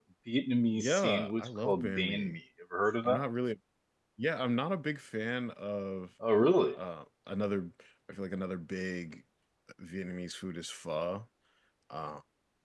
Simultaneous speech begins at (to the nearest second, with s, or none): 1 s